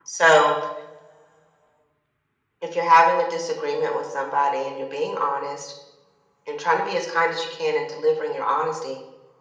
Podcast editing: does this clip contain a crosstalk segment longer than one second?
No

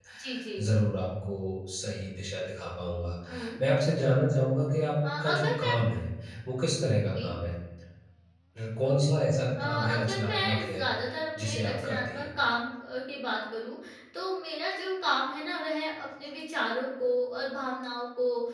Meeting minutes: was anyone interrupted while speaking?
Yes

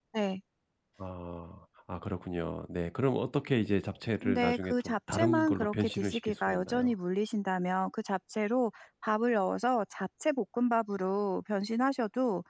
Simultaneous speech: Yes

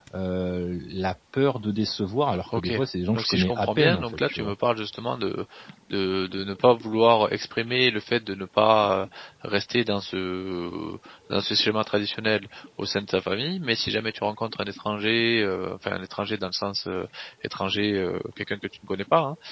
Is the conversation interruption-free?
No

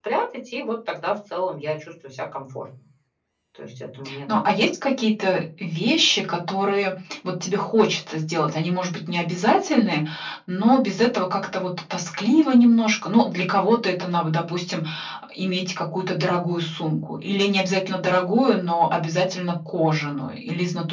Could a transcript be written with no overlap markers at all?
Yes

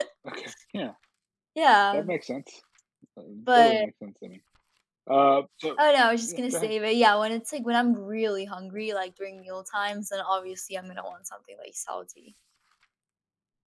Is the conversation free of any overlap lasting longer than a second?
Yes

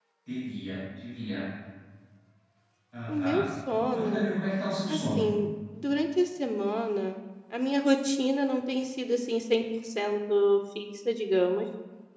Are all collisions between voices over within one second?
Yes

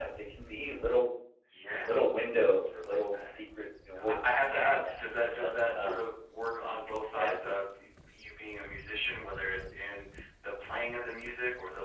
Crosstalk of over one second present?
Yes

